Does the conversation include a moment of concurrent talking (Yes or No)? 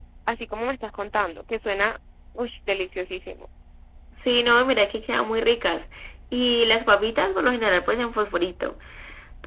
No